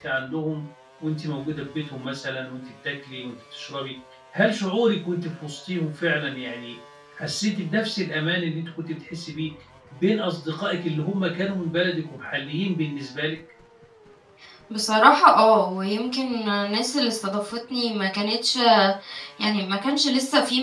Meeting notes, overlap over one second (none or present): none